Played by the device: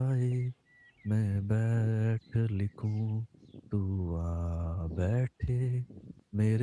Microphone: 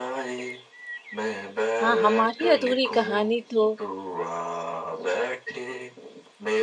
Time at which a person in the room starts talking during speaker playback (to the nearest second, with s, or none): 2 s